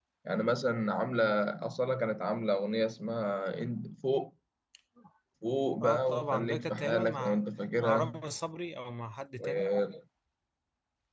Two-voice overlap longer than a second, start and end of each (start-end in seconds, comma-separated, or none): 5.8-7.4